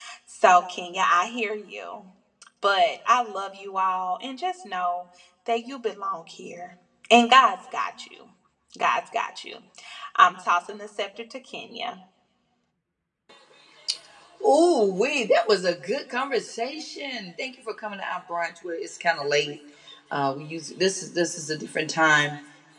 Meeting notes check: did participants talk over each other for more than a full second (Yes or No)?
No